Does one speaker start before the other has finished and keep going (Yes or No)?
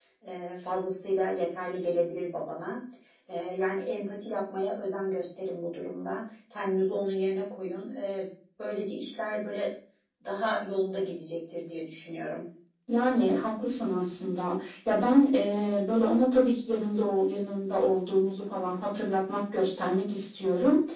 No